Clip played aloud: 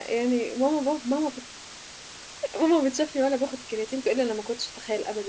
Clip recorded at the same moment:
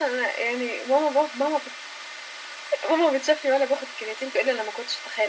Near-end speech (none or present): none